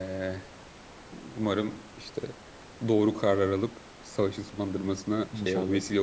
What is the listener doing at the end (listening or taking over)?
taking over